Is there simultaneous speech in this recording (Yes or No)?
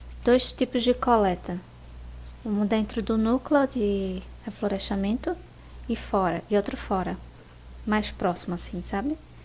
No